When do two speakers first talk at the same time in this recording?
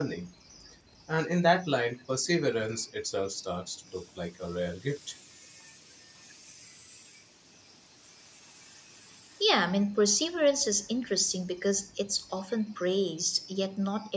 none

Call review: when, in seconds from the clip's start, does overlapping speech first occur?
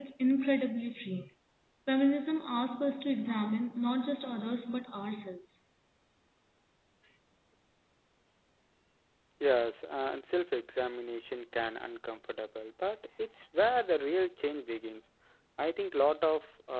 none

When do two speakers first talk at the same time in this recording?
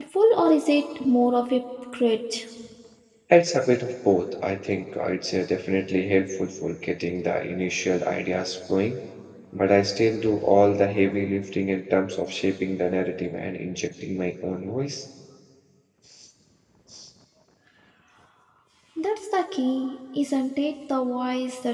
none

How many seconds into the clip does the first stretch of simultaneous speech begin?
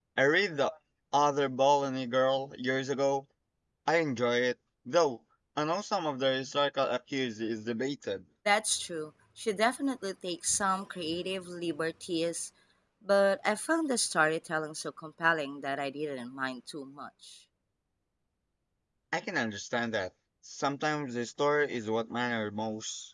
none

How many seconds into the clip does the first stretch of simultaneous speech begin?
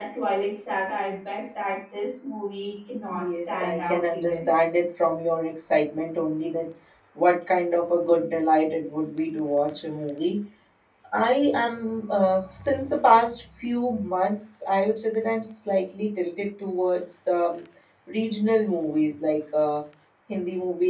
3.0 s

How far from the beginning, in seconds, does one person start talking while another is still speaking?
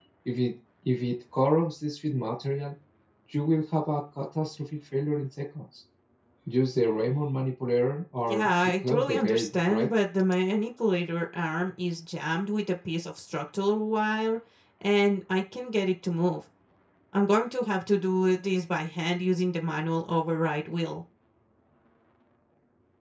8.2 s

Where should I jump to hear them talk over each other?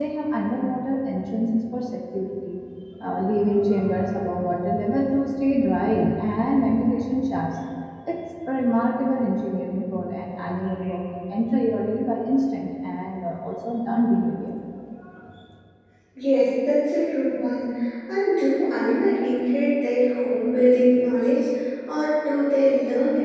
none

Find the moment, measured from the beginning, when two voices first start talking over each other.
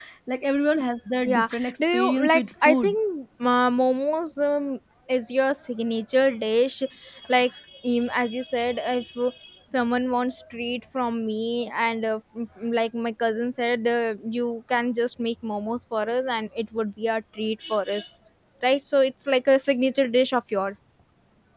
1.2 s

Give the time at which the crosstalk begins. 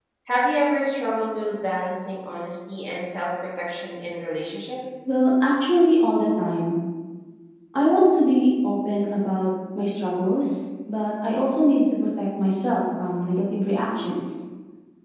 none

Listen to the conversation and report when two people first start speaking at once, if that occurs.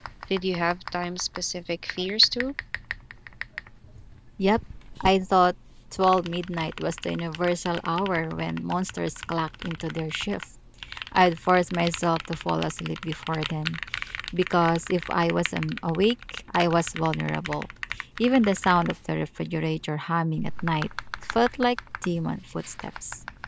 none

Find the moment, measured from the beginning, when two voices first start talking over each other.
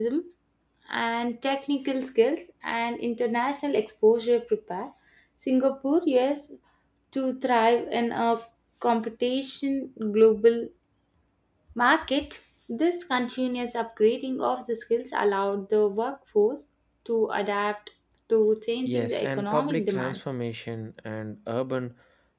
18.9 s

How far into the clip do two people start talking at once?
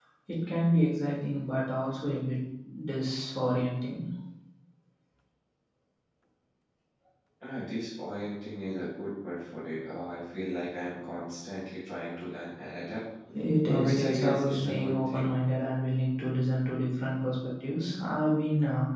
13.7 s

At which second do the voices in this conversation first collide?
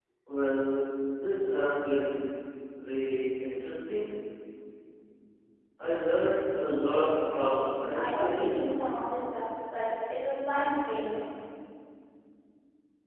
6.6 s

